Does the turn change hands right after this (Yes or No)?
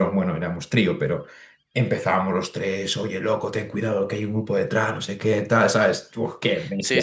Yes